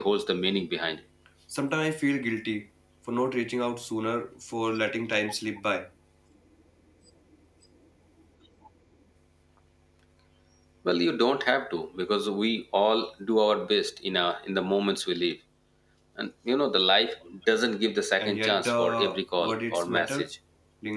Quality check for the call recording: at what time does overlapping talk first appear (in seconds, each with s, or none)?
18.2 s